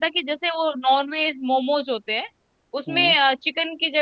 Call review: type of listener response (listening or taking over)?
listening